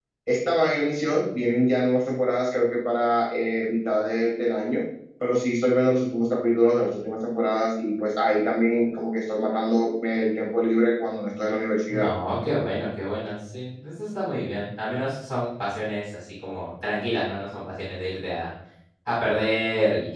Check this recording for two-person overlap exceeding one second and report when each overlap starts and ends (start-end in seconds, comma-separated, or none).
none